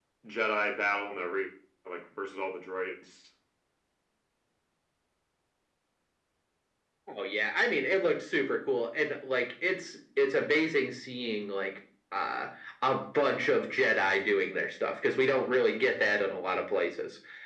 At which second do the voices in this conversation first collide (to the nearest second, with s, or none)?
none